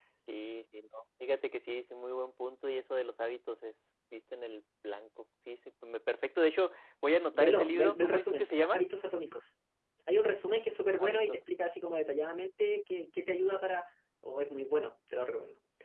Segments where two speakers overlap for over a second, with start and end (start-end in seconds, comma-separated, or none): 7.3-8.8